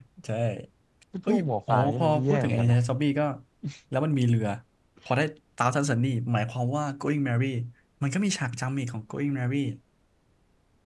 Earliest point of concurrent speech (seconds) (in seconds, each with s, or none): 1.3 s